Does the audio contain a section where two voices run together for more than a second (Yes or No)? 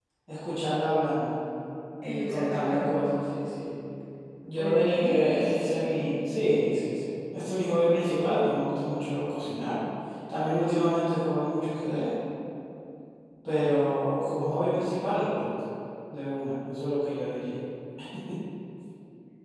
Yes